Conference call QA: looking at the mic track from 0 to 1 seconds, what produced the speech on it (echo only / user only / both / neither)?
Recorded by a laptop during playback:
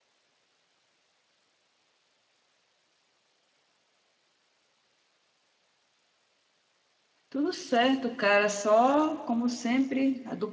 neither